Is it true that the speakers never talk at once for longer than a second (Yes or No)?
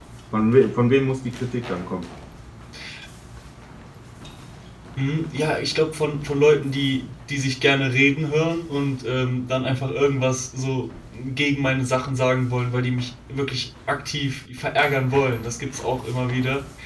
Yes